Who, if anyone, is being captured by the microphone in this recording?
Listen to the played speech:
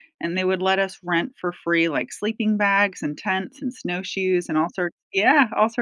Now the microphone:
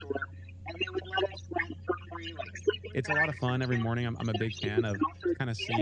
both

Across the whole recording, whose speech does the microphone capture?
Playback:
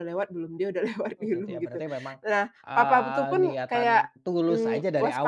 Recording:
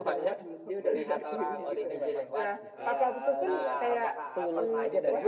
both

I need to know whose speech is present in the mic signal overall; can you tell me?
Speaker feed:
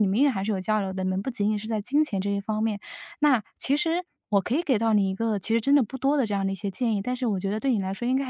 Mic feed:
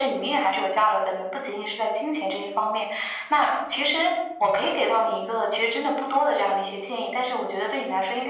echo only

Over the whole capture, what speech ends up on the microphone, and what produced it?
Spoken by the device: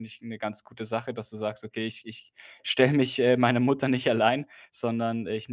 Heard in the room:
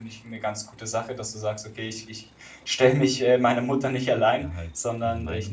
both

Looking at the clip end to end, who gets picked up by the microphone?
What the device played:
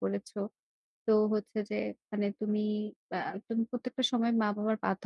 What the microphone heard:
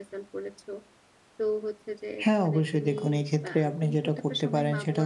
both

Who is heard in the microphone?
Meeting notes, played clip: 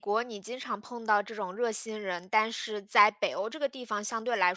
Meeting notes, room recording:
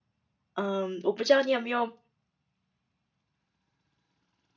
user only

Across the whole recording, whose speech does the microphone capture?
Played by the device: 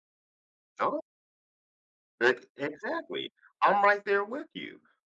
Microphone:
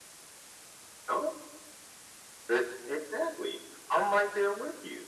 echo only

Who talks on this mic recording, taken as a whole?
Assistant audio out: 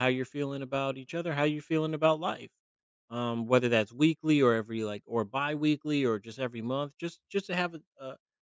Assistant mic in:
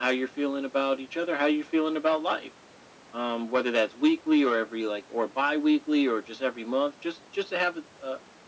echo only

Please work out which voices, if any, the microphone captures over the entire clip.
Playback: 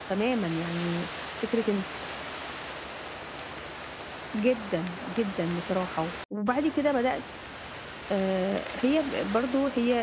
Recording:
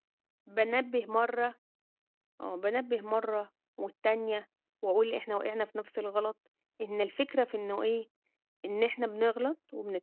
user only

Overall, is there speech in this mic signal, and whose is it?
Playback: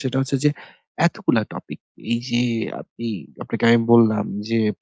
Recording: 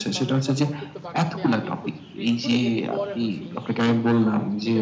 both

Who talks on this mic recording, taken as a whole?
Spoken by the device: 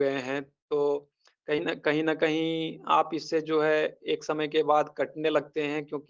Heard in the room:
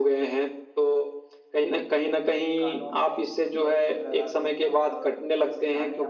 both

